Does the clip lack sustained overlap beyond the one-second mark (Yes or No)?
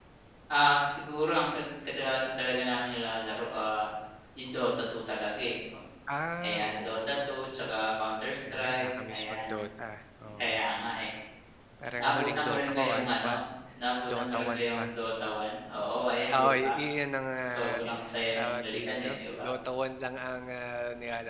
No